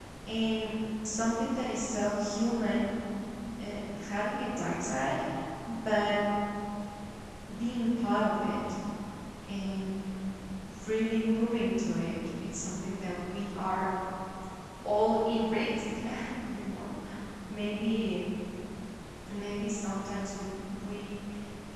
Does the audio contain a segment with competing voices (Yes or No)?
No